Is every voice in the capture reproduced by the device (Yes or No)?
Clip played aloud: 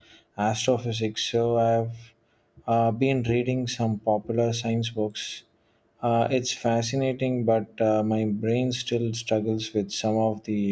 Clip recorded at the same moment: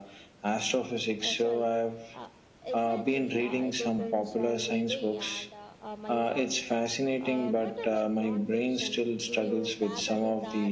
No